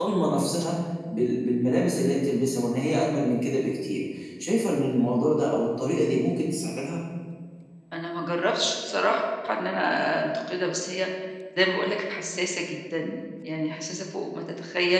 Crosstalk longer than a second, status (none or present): none